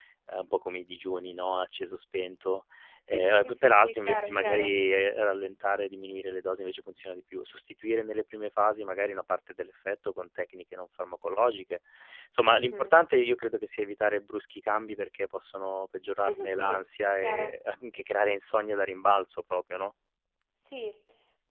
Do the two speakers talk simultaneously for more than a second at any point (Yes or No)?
Yes